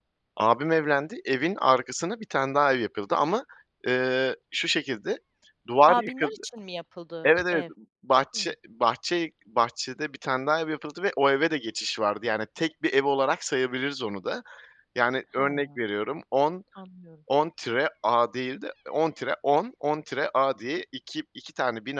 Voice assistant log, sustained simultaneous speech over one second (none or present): none